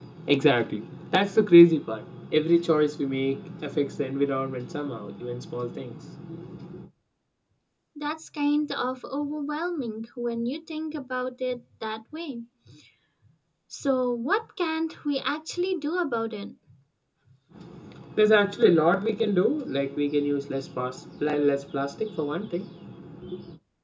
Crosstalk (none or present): none